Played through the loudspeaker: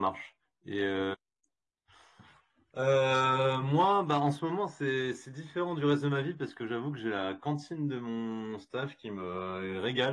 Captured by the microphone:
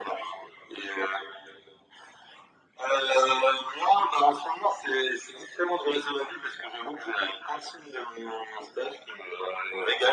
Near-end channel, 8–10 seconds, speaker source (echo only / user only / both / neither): echo only